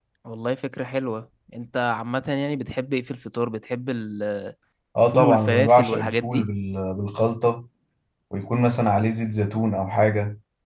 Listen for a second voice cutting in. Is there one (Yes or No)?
Yes